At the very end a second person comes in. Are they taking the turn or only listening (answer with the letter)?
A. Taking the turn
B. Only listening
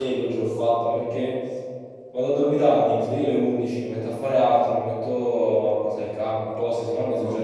A